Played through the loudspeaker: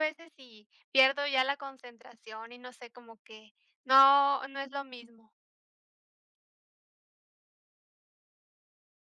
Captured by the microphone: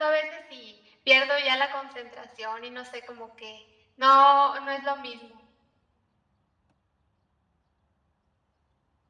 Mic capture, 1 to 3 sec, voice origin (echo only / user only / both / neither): echo only